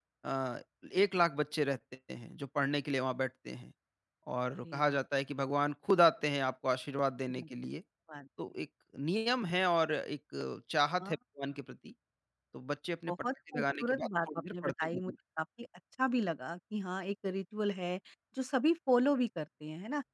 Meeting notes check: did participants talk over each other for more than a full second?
Yes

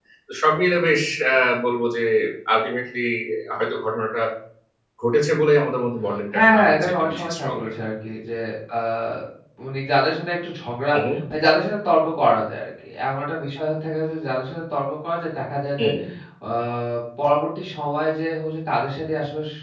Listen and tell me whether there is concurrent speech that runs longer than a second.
Yes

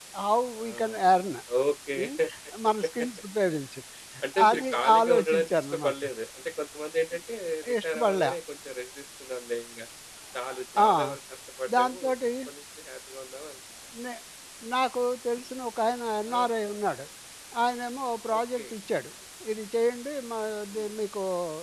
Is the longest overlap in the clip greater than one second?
Yes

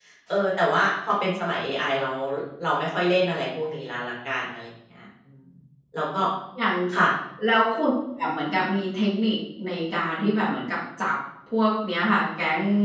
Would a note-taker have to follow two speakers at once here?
No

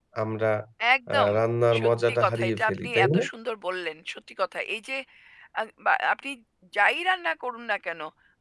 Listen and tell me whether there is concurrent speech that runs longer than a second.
Yes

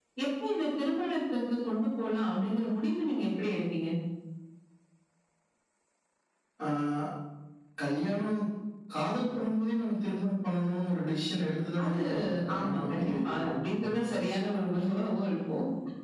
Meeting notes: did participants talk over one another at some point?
Yes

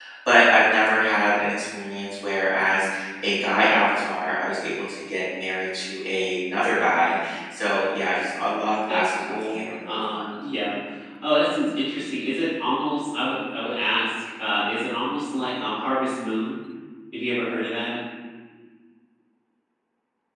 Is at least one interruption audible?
Yes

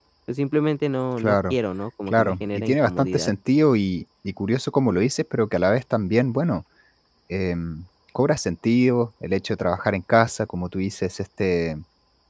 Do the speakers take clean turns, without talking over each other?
No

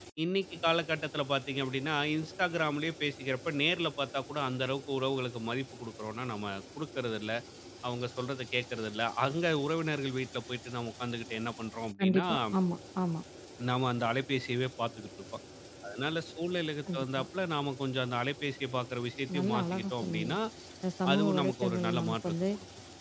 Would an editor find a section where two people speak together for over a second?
Yes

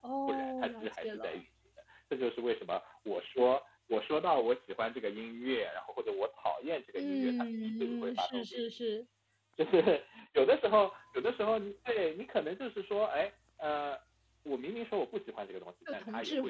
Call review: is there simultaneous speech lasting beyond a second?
Yes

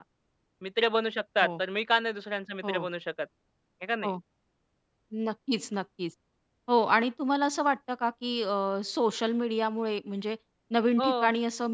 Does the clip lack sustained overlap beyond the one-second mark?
Yes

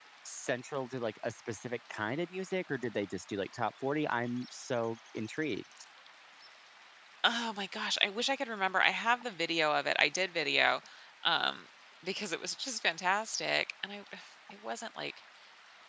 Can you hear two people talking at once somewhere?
No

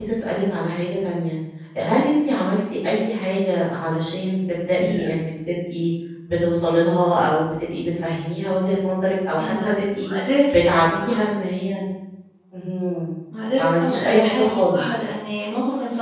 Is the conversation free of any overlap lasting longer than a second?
No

